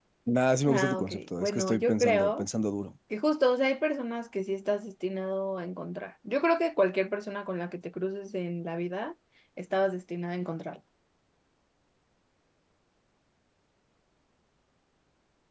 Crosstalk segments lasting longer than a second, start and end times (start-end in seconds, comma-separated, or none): 0.7-2.4